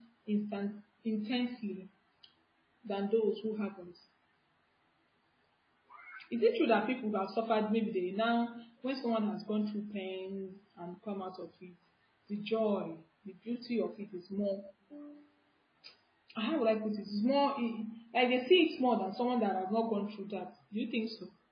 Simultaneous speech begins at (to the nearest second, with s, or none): none